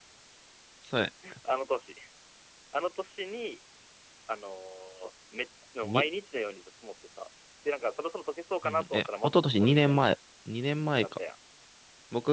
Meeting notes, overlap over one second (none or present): present